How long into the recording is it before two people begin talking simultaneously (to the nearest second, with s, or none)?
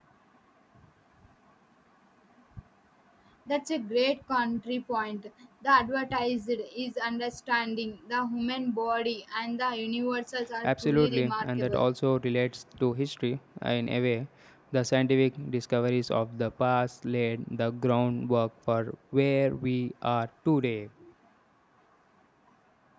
11 s